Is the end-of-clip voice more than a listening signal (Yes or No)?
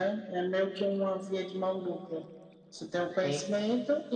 No